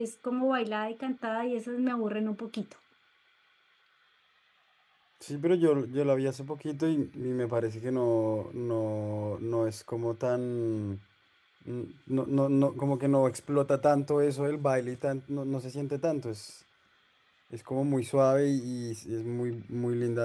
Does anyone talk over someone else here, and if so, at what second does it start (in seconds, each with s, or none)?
none